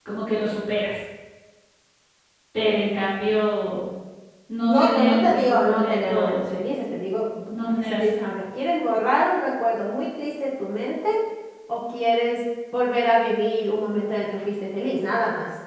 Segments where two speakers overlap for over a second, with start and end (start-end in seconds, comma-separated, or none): 4.7-6.4